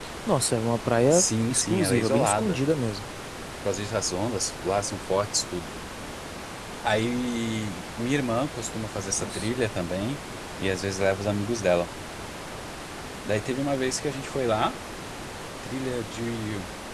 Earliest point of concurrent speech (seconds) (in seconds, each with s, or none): 1.1 s